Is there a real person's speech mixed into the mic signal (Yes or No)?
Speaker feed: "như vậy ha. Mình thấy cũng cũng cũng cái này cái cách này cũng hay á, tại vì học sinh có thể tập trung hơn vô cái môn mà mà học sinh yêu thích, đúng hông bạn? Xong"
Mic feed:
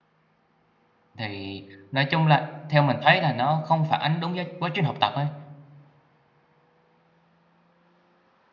Yes